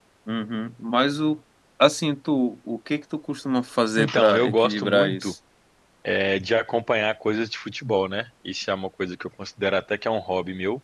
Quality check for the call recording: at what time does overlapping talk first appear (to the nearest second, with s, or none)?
4 s